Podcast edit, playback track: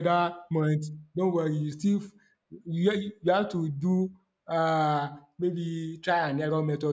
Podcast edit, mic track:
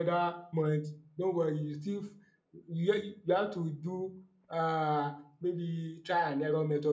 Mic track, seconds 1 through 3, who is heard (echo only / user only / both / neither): echo only